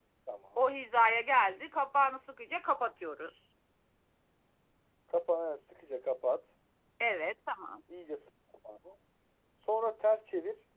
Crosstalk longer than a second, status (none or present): none